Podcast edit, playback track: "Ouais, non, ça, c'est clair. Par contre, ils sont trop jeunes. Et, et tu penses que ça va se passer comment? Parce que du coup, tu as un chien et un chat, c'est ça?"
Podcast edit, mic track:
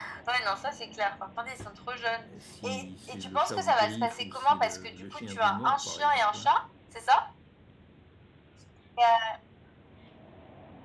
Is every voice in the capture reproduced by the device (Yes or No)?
No